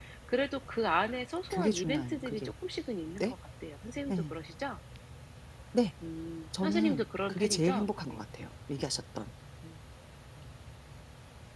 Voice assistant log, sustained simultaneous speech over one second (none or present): present